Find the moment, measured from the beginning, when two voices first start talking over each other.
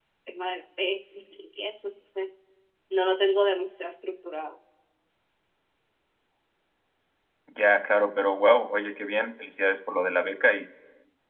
none

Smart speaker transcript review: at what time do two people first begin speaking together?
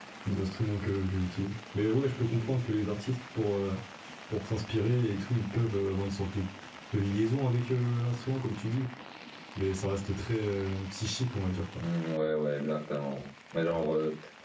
none

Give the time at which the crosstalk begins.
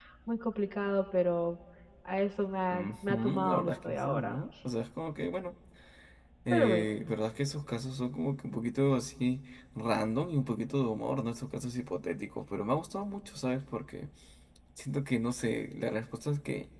2.7 s

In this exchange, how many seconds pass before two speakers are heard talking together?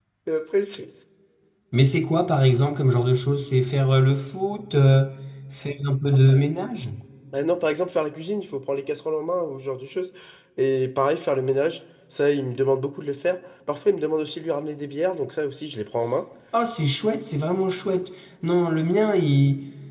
none

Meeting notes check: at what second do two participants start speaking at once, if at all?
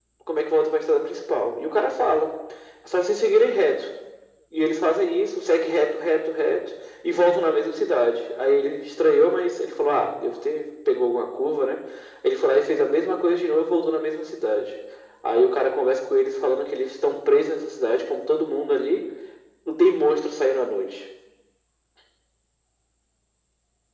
none

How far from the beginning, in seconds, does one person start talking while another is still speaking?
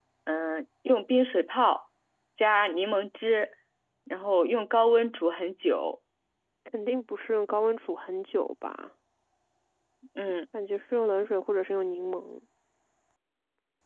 none

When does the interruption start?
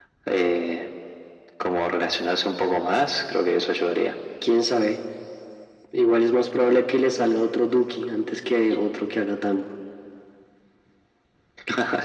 none

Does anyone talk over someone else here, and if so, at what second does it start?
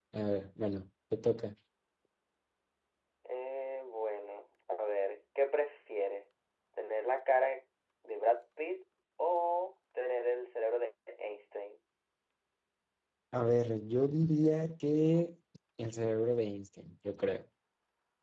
none

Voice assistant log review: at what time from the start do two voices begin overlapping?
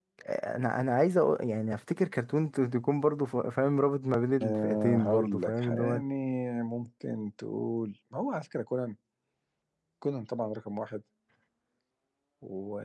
4.4 s

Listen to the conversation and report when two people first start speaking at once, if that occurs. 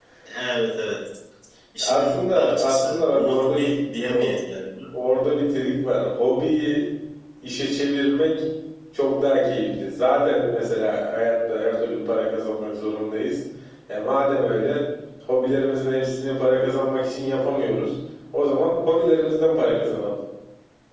1.8 s

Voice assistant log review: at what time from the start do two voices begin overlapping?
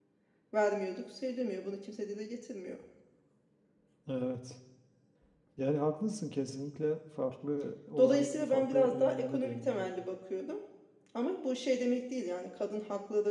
8.0 s

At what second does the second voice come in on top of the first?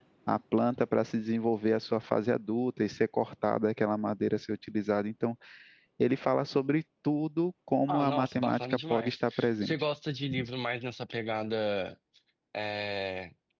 7.9 s

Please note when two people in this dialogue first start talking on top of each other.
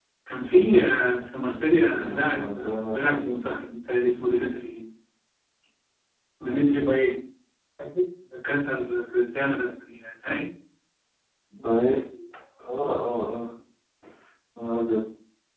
2.0 s

